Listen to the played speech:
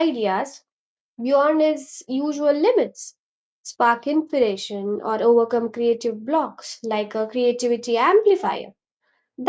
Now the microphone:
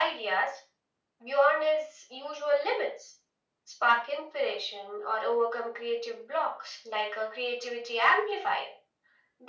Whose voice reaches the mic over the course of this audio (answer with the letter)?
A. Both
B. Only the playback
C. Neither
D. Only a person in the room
B